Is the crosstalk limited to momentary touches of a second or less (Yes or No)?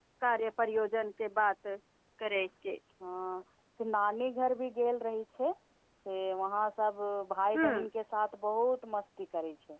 Yes